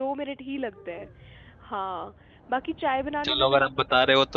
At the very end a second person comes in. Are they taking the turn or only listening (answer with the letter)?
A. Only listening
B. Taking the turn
B